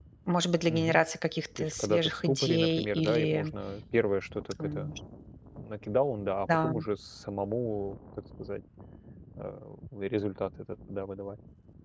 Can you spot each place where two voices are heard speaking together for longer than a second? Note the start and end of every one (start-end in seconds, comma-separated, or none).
1.6-3.5